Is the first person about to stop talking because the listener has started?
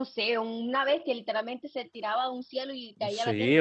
Yes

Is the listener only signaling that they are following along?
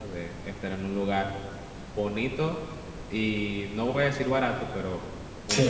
No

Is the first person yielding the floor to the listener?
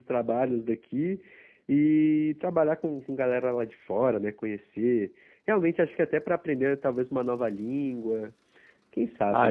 Yes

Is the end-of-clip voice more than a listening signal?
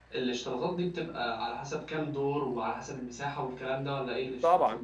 Yes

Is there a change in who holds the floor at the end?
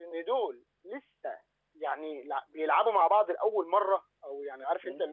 No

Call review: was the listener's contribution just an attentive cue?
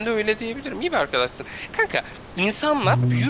Yes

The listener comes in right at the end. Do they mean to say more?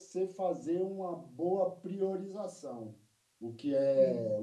No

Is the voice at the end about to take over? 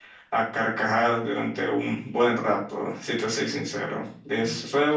No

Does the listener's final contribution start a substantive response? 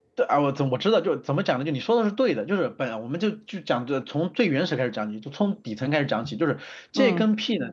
No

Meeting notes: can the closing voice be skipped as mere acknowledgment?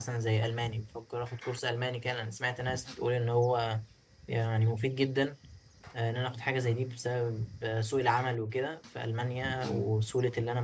Yes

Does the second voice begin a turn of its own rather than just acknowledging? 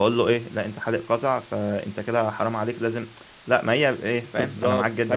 Yes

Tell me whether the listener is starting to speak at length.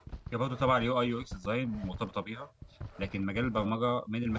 No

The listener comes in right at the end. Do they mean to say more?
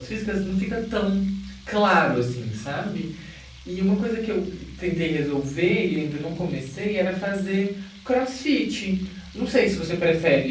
No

